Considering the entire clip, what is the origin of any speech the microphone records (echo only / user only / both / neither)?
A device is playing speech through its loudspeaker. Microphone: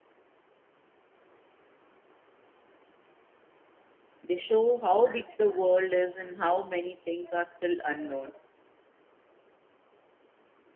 user only